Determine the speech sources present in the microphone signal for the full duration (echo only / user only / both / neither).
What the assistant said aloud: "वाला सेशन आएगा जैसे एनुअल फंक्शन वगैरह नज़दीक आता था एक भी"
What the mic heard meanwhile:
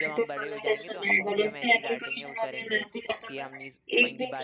both